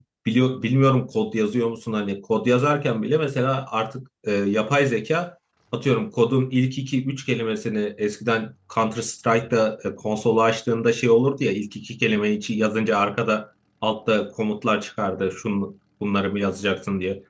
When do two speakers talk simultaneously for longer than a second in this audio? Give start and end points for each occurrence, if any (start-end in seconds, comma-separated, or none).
none